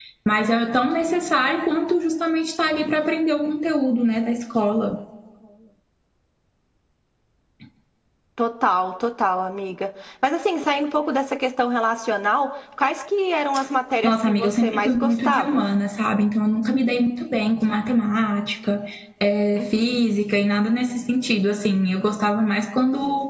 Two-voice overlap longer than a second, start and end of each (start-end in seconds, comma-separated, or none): 14.0-15.6